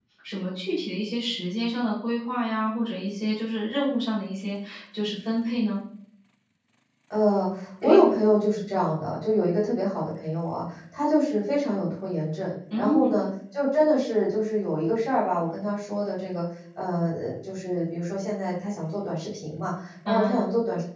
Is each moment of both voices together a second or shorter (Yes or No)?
Yes